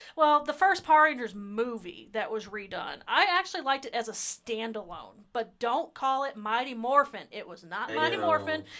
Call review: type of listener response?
listening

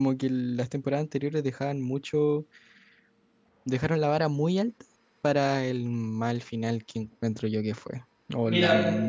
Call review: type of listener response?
listening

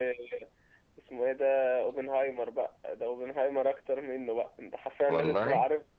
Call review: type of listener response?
listening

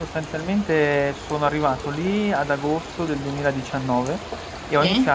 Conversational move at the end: listening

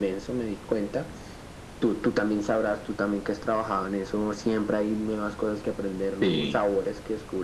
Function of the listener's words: listening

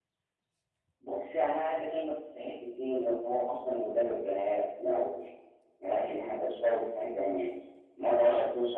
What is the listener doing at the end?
listening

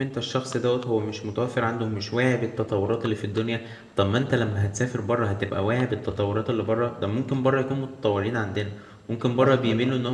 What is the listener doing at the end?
listening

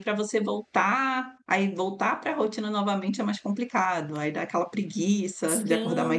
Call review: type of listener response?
taking over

